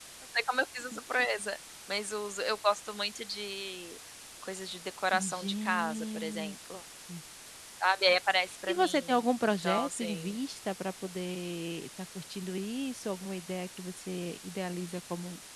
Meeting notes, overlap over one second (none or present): present